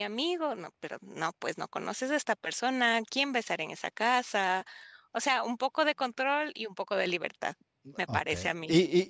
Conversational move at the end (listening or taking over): taking over